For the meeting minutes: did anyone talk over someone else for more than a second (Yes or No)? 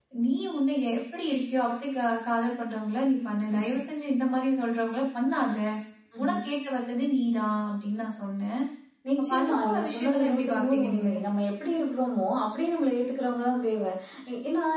Yes